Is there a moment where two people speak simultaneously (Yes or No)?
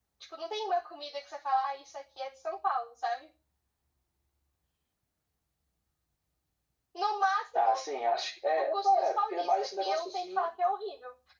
Yes